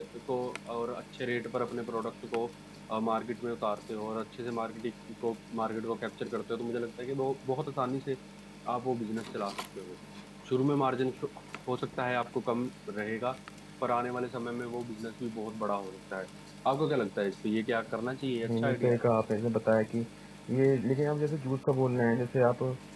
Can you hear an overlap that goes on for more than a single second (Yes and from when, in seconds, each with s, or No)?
No